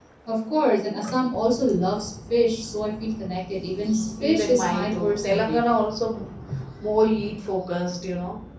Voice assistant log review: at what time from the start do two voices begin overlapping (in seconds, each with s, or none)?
3.8 s